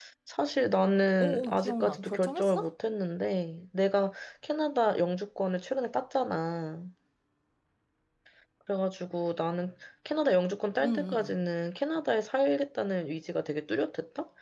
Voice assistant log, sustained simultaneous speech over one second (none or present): present